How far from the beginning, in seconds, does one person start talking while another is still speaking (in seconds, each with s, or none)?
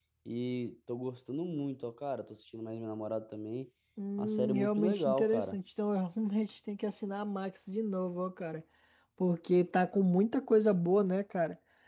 4.2 s